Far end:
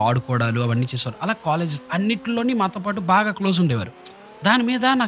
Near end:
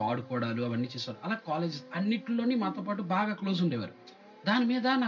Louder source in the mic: echo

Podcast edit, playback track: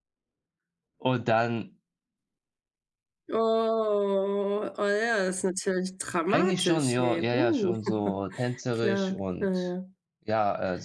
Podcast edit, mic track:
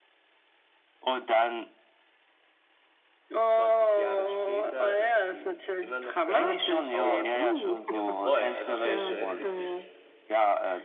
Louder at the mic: echo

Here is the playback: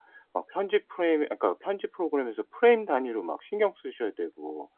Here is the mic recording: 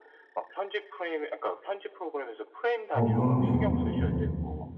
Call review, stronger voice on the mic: user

